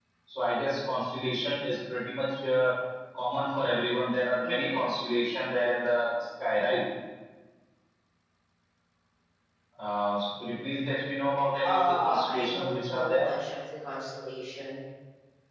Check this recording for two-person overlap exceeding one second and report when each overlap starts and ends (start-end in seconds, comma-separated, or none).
11.6-13.3